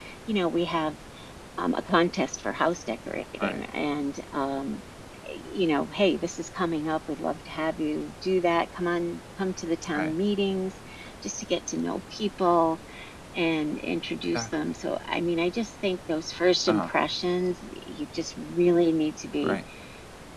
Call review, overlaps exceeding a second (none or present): none